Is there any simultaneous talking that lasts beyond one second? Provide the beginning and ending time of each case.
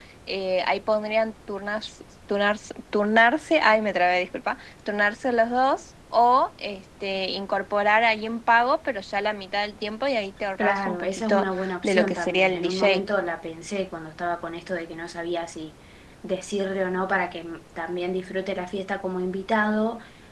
10.6-13.0

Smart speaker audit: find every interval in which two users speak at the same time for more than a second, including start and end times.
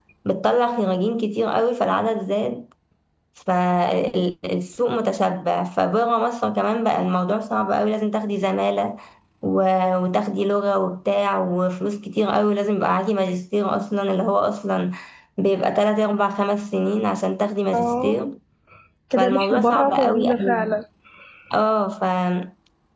19.2-20.8

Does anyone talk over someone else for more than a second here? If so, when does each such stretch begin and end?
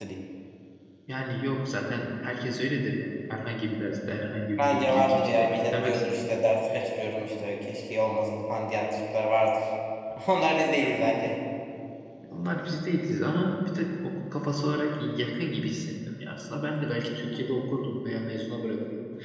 4.6-6.0

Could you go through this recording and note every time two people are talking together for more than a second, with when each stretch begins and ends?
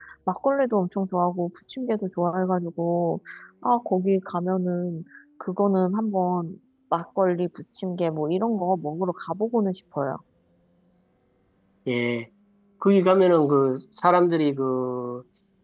none

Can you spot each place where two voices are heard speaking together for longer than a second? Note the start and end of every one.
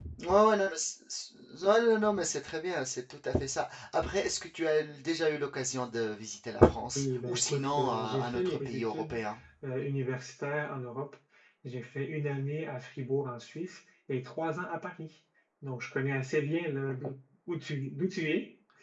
7.0-9.2

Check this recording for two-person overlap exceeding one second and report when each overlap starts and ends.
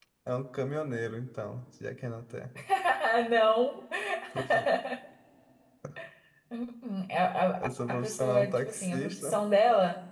7.6-9.4

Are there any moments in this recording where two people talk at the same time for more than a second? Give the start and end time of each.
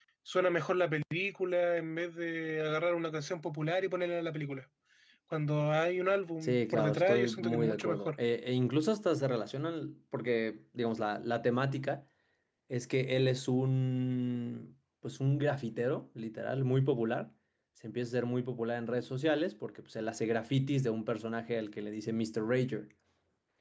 6.4-8.1

